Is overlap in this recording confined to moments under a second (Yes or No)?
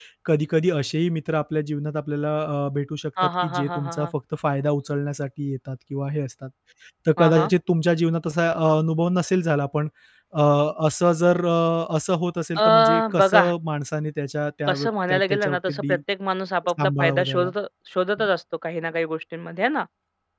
No